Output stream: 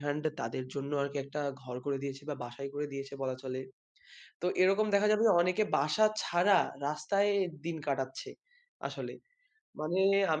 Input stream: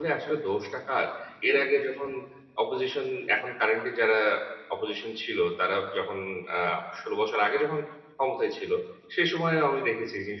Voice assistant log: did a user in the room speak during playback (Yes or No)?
Yes